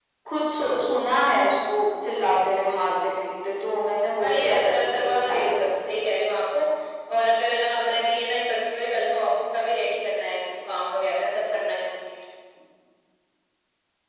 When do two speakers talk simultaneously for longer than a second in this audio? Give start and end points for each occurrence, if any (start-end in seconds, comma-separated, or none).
4.2-6.0